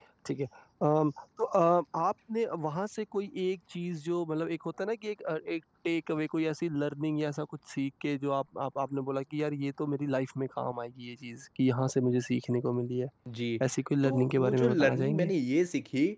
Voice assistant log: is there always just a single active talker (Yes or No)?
No